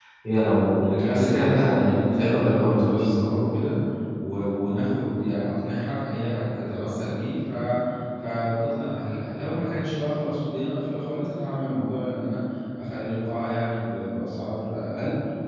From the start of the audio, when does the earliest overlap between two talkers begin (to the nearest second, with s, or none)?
1 s